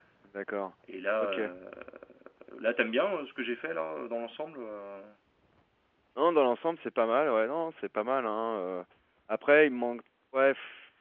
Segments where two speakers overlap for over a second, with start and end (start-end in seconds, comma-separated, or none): none